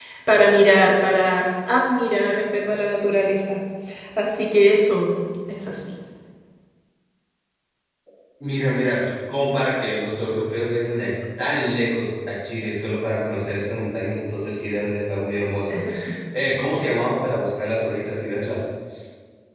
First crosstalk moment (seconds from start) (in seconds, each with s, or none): none